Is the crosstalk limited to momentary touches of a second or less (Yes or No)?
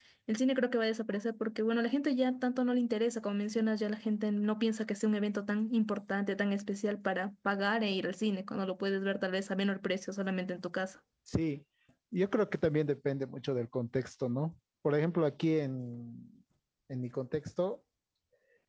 Yes